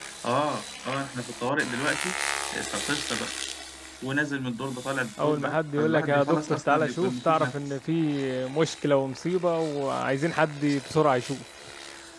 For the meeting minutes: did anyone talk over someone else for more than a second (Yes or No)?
Yes